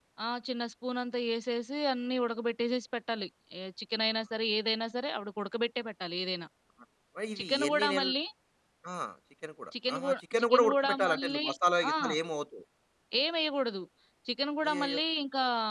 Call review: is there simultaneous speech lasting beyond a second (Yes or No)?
Yes